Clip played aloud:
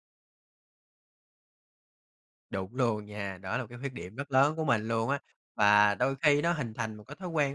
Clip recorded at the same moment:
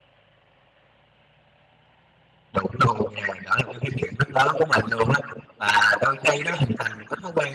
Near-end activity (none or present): none